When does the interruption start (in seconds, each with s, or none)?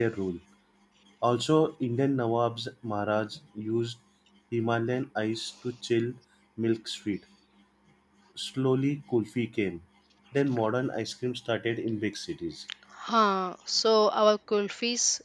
none